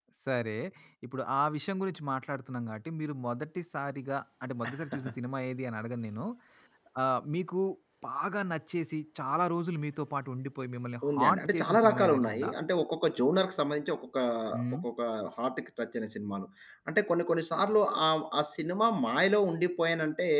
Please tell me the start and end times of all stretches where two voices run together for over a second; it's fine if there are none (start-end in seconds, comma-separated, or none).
11.1-12.5